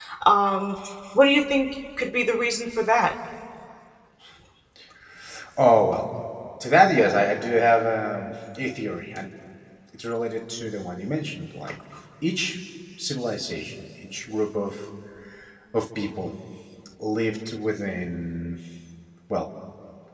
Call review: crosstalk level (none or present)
none